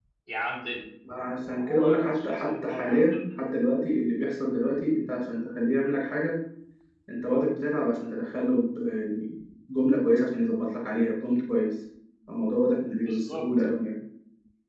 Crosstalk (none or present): present